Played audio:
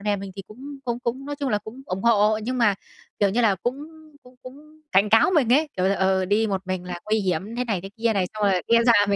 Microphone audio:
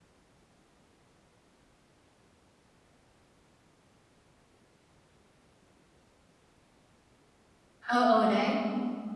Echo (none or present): none